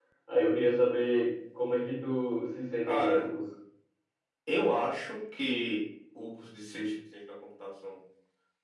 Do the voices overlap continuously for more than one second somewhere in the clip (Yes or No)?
No